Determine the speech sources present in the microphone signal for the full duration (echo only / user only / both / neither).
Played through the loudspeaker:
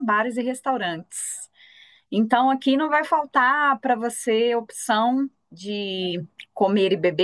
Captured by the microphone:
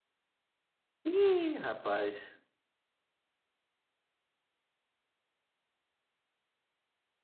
user only